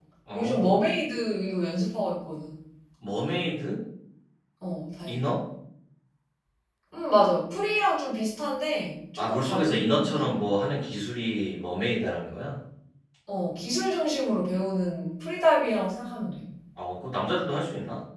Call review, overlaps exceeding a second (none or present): present